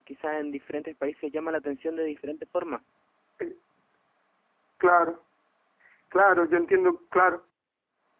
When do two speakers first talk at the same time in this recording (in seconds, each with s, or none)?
none